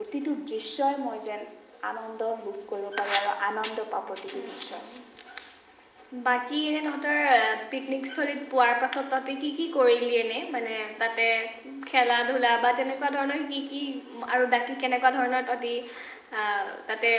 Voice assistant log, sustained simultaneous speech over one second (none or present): none